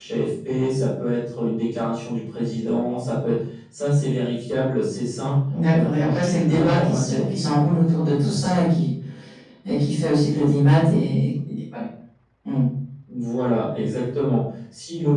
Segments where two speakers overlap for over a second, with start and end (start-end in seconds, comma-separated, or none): 5.7-7.3